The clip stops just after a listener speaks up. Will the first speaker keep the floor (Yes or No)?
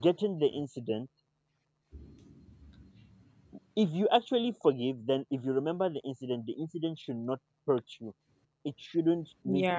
Yes